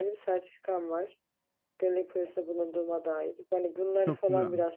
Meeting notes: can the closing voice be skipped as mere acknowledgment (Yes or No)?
Yes